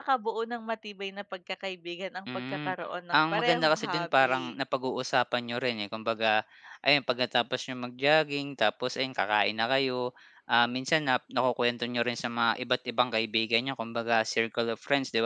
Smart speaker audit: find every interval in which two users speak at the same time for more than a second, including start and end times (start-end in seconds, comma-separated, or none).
3.1-4.5